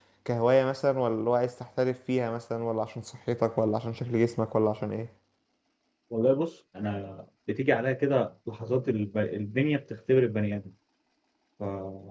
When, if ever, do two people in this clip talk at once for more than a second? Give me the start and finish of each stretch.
none

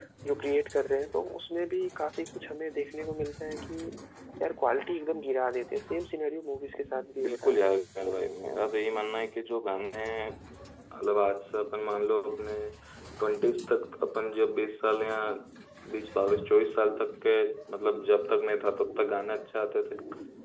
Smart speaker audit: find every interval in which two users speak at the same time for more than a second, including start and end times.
none

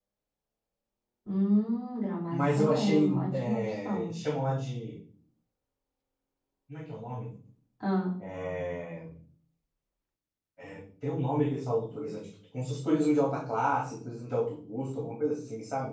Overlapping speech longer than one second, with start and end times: 2.3-4.1

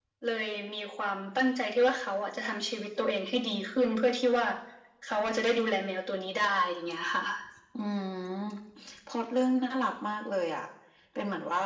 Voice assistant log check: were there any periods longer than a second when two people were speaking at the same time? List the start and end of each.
none

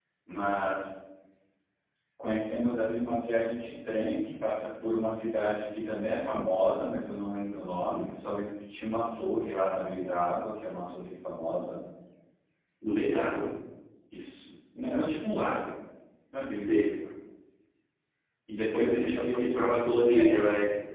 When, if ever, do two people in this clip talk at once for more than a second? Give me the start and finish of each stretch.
18.6-20.3

